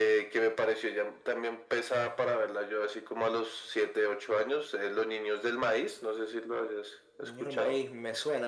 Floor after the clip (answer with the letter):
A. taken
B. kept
A